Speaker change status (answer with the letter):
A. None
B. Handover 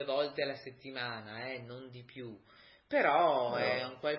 A